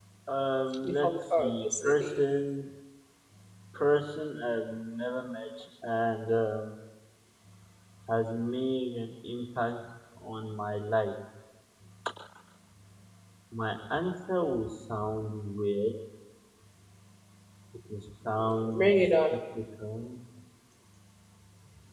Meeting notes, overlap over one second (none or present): present